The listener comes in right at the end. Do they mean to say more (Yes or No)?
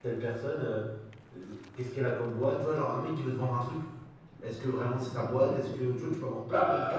Yes